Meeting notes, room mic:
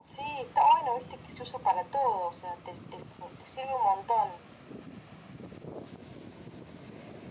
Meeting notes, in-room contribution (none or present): none